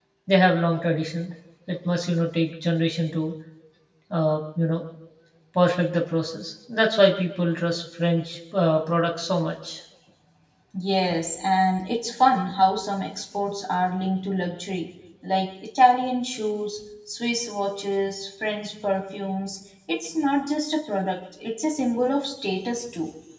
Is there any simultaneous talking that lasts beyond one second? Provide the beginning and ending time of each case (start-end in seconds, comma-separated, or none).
none